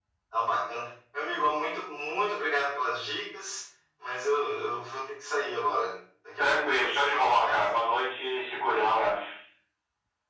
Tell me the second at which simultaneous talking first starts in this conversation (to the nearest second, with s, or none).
6 s